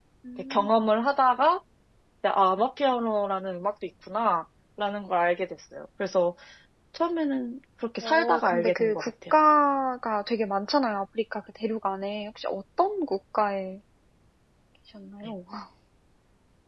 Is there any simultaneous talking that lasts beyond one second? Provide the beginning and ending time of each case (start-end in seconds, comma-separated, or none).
8.0-9.3